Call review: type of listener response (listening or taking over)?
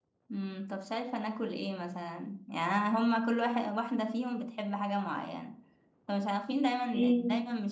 listening